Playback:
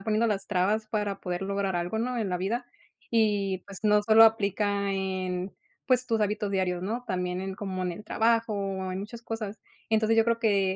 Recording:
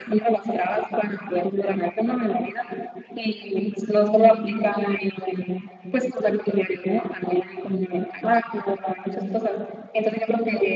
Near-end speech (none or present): none